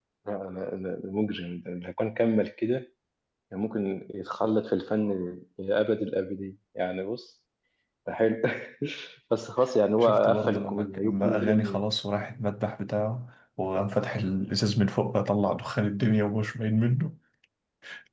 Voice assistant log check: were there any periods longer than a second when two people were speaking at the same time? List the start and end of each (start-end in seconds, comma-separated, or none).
10.0-11.8